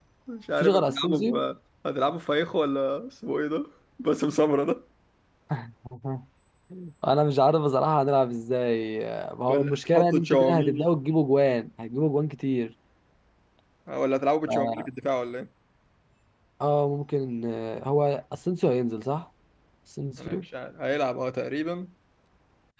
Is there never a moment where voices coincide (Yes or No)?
No